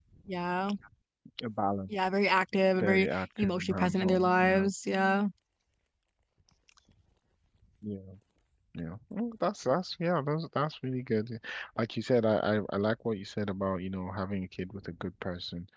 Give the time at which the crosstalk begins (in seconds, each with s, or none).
2.8 s